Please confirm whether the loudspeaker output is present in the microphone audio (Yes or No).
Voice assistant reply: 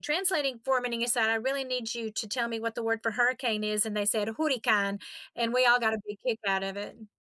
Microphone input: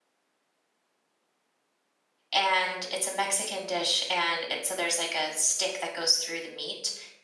No